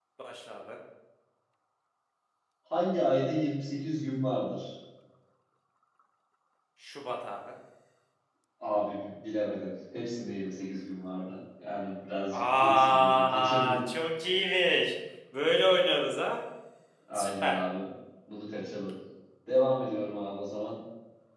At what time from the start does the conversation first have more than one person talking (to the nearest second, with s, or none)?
12 s